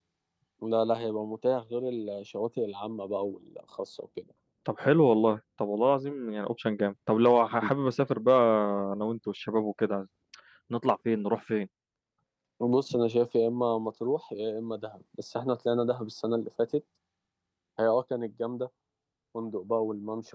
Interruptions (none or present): none